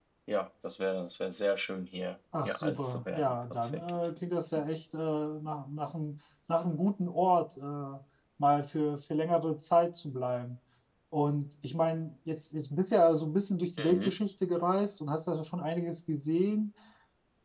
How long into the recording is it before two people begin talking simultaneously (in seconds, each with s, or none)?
2.5 s